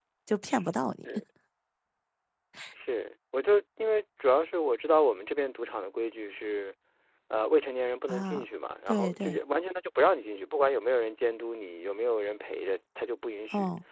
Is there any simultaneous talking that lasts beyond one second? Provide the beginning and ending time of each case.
none

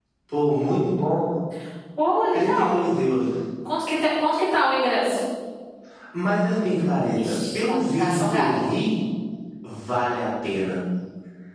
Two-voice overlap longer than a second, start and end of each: 7.1-8.5

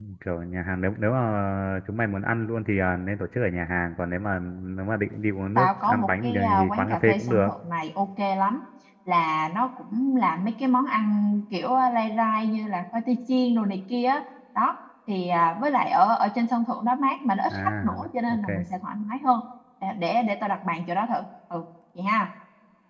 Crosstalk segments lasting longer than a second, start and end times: 5.6-7.5

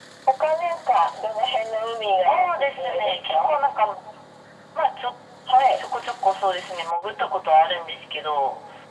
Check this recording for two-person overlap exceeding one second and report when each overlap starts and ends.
2.2-3.6

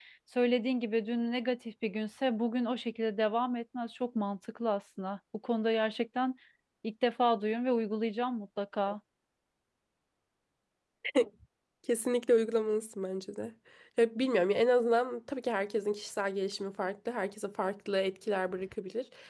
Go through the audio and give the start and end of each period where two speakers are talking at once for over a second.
none

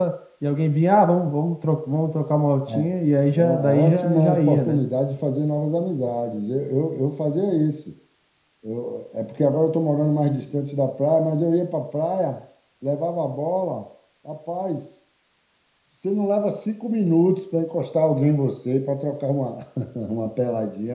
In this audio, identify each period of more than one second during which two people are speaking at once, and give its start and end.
3.3-4.8

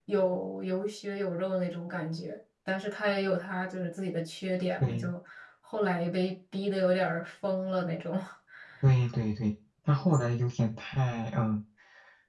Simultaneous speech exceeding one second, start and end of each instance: none

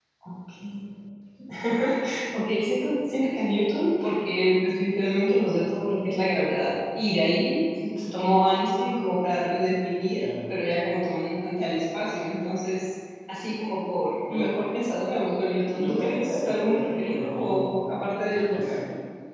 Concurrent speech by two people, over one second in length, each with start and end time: 15.7-17.7

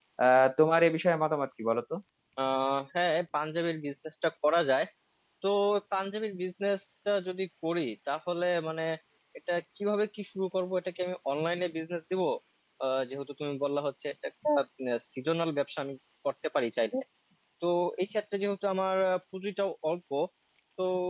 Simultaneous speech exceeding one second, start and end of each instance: none

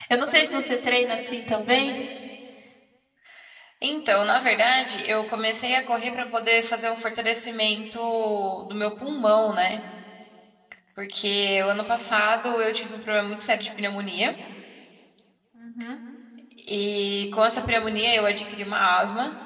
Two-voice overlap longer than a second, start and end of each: none

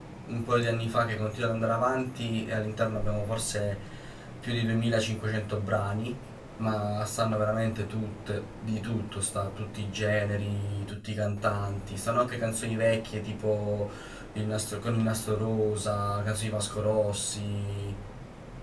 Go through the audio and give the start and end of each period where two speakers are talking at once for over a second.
none

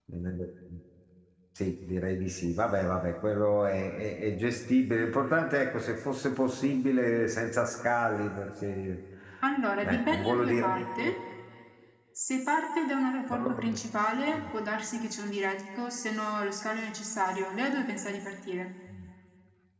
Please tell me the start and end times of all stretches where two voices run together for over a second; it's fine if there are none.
9.8-11.1

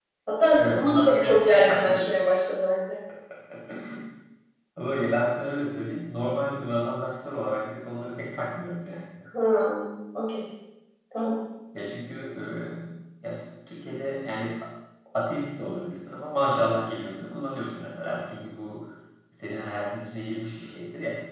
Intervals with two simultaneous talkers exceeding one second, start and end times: 0.6-2.1

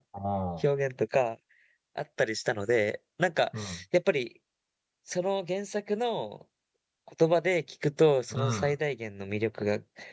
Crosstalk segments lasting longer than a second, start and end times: none

